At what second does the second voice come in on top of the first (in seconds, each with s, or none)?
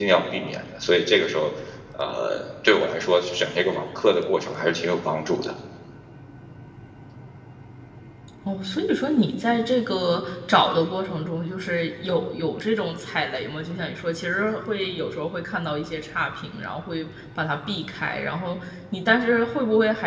none